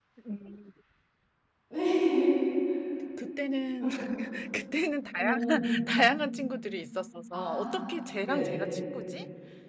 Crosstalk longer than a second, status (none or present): present